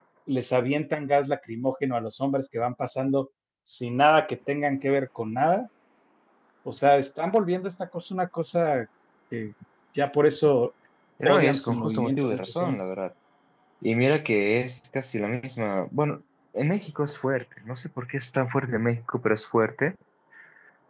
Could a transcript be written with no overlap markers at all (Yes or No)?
No